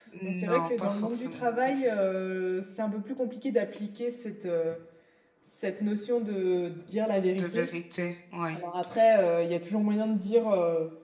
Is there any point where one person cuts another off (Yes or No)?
Yes